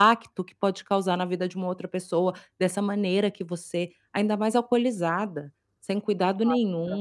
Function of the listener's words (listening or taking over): taking over